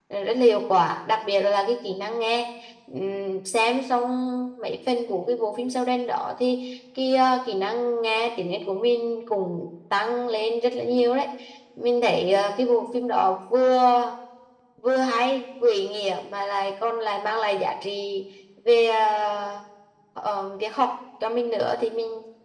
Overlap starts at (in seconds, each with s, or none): none